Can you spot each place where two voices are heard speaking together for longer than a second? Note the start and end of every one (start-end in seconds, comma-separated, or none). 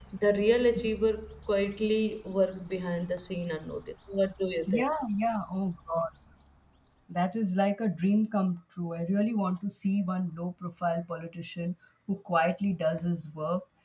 none